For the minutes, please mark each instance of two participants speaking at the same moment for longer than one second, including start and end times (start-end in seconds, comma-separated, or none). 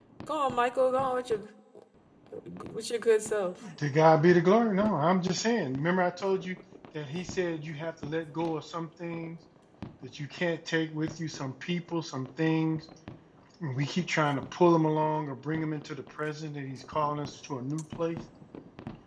none